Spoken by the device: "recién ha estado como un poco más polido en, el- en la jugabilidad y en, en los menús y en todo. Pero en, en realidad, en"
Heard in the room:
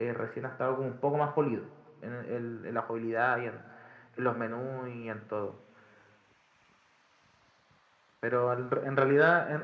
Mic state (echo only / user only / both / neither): echo only